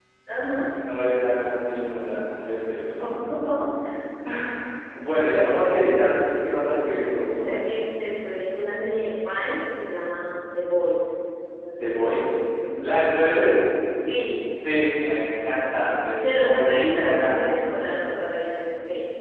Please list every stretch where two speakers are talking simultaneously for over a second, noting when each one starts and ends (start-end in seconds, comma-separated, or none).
16.2-17.4